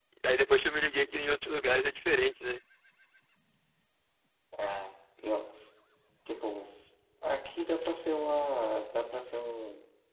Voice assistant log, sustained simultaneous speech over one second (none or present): none